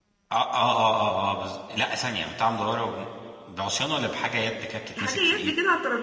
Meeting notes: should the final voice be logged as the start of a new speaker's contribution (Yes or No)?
Yes